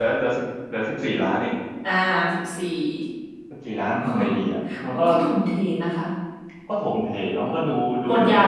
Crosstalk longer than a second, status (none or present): none